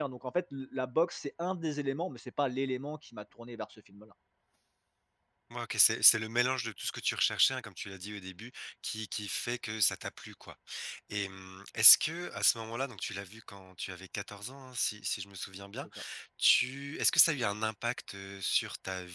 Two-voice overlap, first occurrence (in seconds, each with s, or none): none